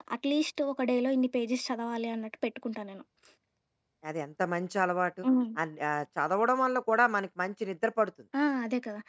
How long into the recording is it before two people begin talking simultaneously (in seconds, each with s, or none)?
none